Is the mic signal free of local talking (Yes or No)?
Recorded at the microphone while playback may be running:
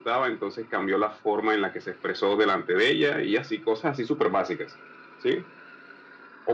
Yes